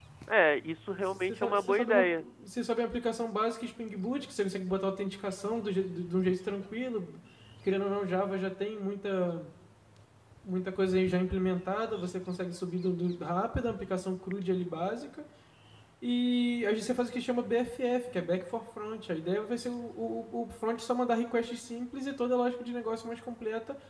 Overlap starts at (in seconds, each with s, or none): 0.9 s